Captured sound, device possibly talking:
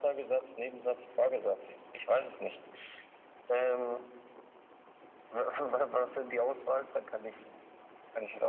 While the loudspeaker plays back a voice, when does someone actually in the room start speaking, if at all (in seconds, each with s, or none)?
none